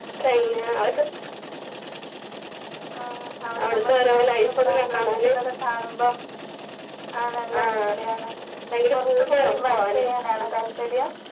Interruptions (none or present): present